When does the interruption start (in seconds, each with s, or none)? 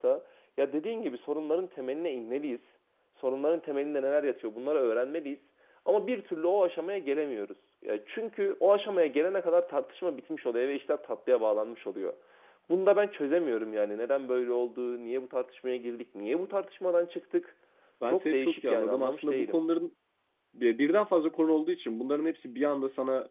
18.1 s